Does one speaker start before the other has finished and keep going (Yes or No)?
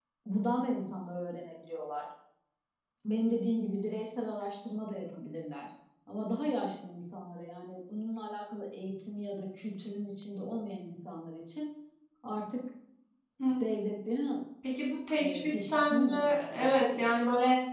Yes